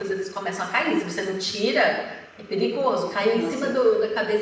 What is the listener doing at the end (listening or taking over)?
listening